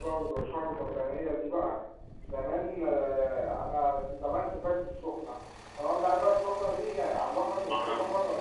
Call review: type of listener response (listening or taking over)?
listening